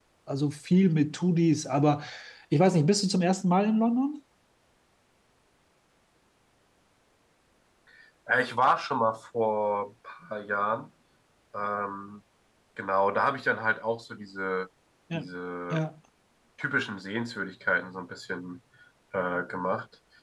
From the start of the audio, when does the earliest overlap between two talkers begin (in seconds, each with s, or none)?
none